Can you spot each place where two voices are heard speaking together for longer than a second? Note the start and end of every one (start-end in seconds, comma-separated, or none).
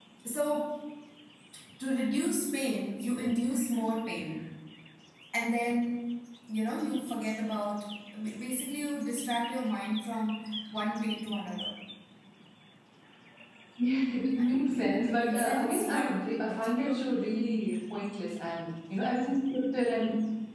14.4-16.9